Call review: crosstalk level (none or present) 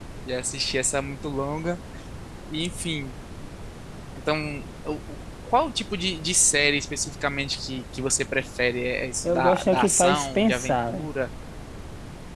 present